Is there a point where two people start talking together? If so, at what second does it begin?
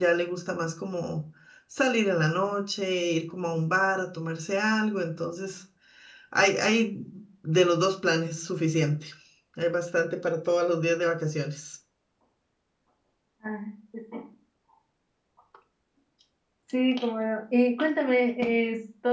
none

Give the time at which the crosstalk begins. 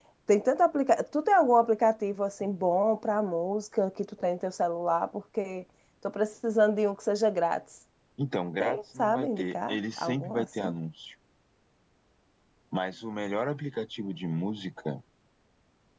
8.6 s

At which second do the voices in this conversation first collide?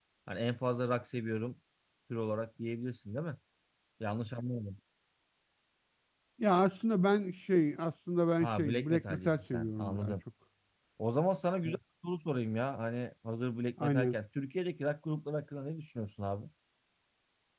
8.4 s

